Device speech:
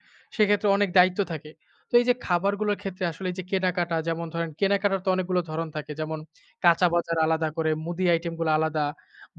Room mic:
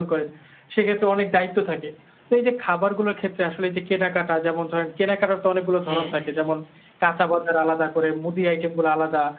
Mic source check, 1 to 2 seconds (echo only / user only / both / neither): echo only